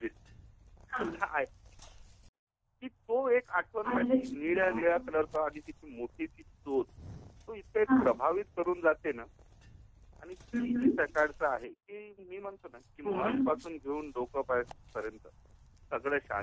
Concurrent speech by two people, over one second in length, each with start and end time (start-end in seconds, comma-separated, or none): none